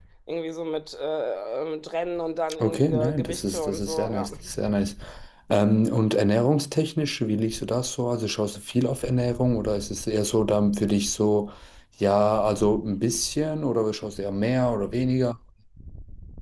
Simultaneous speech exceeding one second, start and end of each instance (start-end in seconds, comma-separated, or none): 2.6-4.3